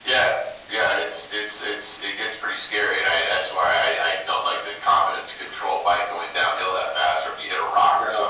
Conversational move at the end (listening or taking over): listening